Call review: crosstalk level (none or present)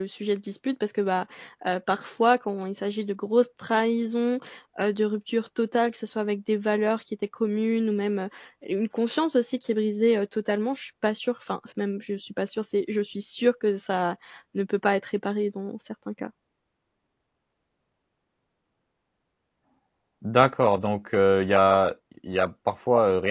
none